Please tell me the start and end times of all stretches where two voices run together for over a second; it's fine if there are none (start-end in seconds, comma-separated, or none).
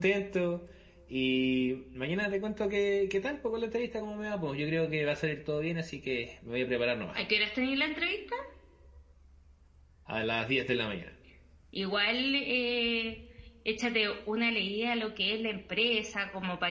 none